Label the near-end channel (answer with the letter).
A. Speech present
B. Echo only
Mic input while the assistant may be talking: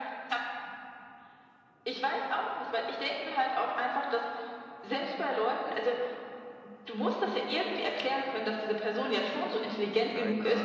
A